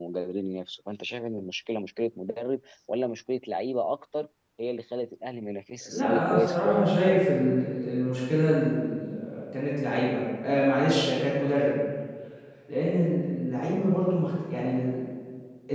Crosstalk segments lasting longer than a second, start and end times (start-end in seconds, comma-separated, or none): 5.9-7.2